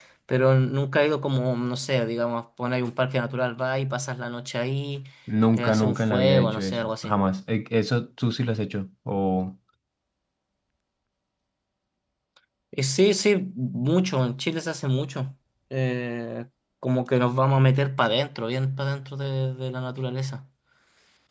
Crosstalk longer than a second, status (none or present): present